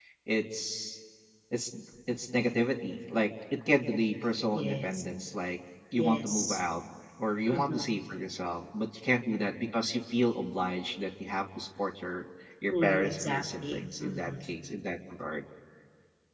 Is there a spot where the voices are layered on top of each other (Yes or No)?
Yes